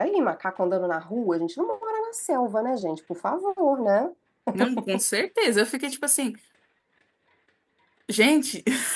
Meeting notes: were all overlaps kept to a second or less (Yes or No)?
Yes